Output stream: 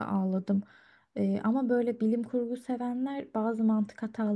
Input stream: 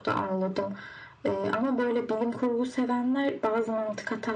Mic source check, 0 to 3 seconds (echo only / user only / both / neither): echo only